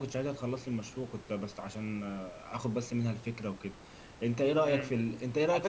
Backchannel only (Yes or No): No